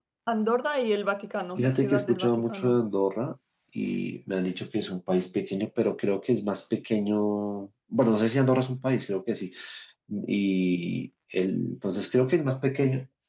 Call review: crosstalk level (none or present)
present